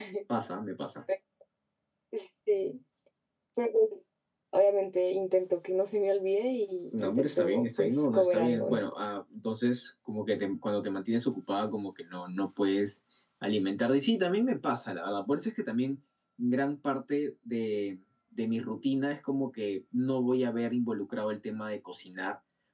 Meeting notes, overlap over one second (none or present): present